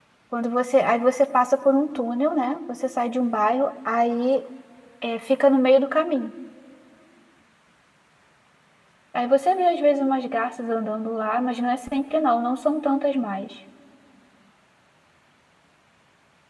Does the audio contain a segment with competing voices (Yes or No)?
No